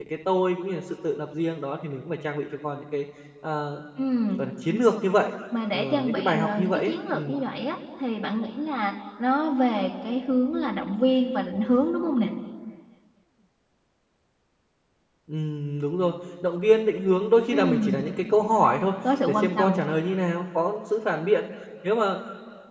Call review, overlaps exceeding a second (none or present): present